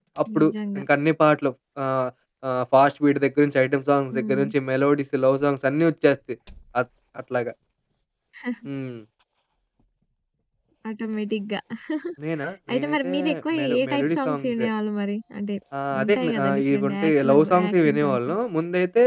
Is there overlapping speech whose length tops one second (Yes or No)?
Yes